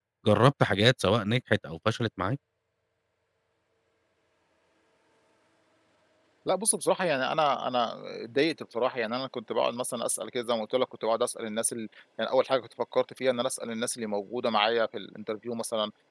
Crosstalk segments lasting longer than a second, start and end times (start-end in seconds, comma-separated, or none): none